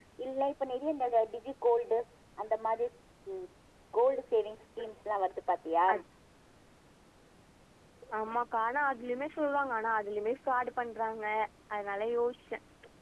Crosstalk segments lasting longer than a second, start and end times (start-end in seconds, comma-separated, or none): none